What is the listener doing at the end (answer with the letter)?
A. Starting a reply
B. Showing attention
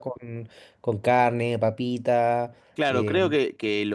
A